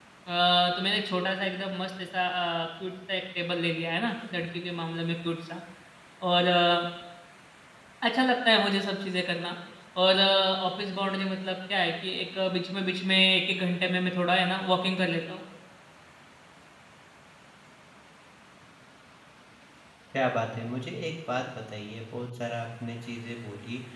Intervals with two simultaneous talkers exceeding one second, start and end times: none

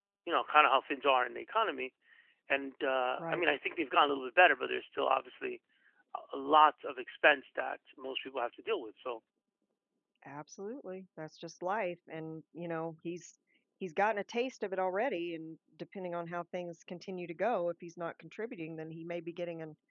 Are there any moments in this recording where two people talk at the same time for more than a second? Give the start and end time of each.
none

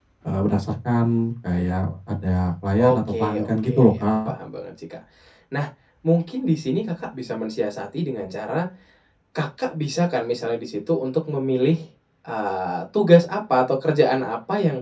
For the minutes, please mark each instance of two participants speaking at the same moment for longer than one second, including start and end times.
2.8-4.3

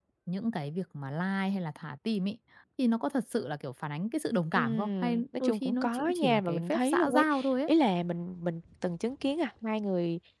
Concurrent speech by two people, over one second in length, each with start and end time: 4.5-7.2

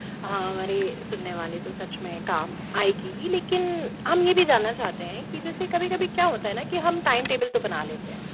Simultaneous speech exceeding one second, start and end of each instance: none

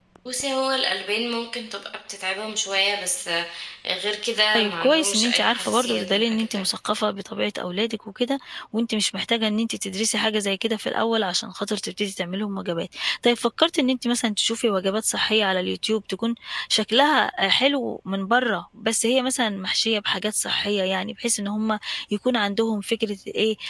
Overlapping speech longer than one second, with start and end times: 4.5-6.4

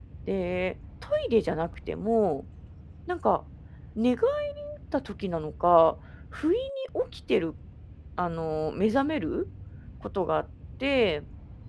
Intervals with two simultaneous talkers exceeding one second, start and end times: none

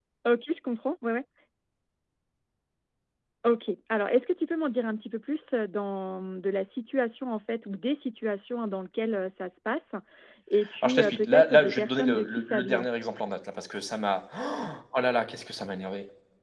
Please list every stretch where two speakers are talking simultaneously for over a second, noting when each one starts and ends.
10.8-12.8

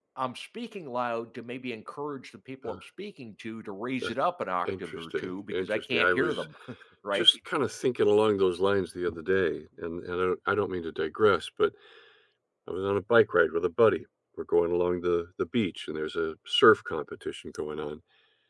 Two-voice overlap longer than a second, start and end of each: 4.7-6.5

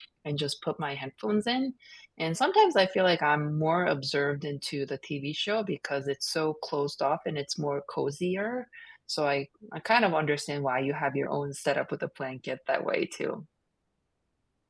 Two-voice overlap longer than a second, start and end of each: none

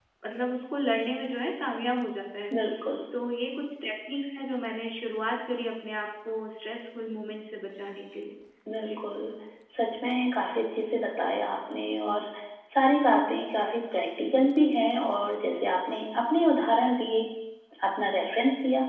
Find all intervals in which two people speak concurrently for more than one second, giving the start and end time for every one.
none

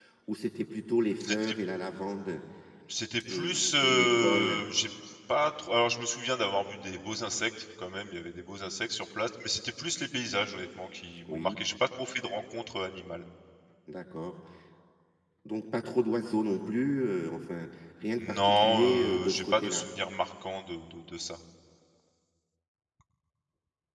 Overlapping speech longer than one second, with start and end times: 3.3-4.6, 18.2-19.9

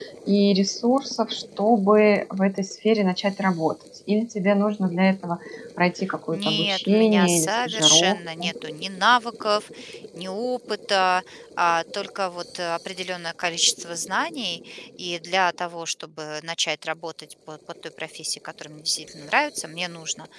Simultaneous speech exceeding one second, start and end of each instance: 6.3-8.4

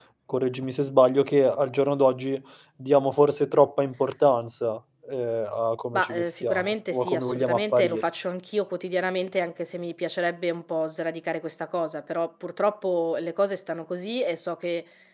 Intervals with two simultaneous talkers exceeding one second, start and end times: 5.9-8.1

